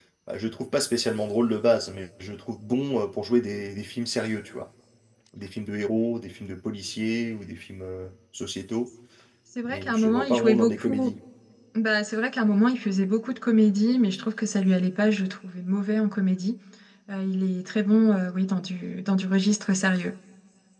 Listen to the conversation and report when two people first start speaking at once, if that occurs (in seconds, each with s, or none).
9.7 s